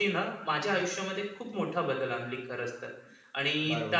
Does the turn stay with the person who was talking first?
No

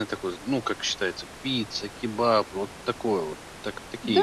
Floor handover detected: Yes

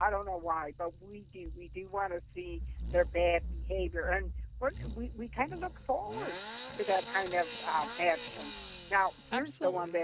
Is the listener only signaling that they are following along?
Yes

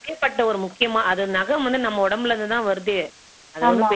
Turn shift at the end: No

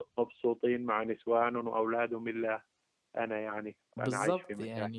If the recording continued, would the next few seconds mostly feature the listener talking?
Yes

